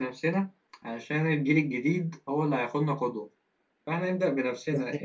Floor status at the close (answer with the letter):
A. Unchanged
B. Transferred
A